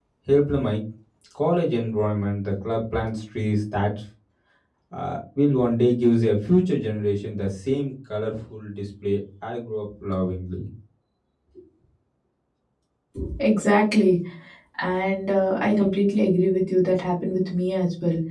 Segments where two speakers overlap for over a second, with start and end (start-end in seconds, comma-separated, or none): none